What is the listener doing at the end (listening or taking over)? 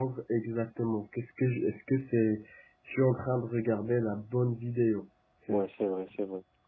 taking over